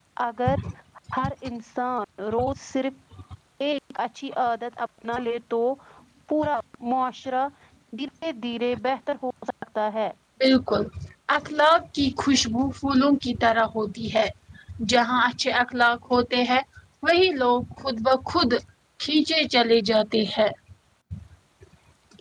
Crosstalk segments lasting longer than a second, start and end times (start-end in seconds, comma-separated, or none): none